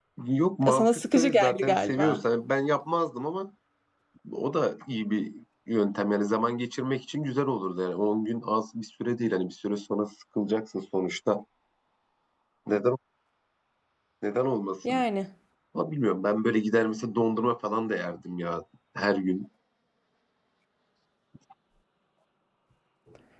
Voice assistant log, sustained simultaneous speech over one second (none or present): present